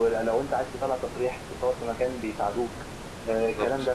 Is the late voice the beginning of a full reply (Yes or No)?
No